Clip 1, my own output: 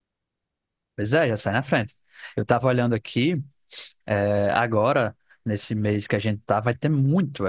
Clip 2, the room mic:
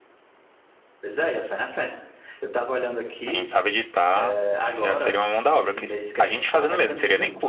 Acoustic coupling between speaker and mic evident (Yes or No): Yes